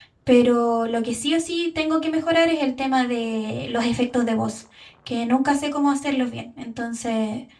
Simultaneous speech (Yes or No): No